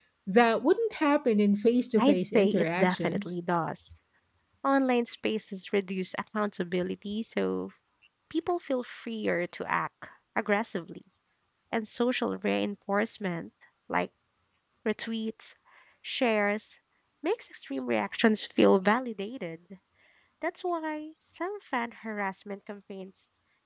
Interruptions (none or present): present